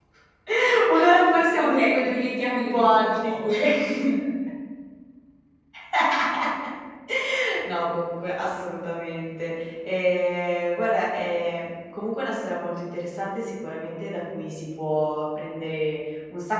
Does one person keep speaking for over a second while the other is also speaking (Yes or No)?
Yes